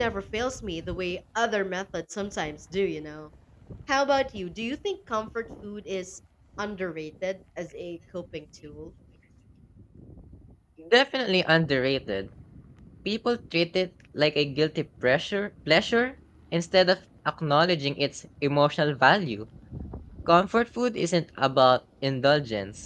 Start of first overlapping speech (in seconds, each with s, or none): none